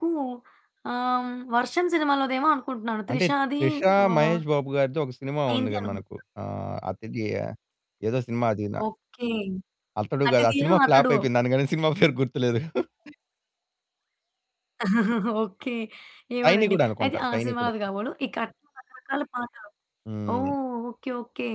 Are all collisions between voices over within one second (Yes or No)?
No